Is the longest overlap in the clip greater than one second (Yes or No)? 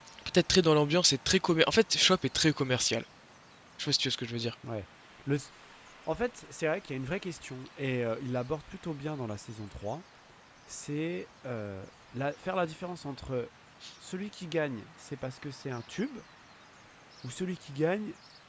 No